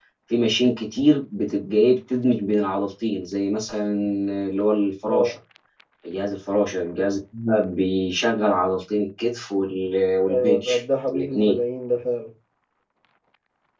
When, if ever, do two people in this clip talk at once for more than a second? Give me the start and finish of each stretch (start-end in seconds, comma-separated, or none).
10.3-11.6